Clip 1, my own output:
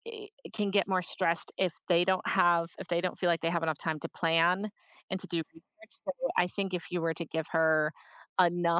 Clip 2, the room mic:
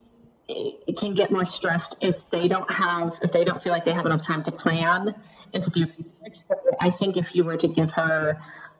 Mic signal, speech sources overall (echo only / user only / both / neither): echo only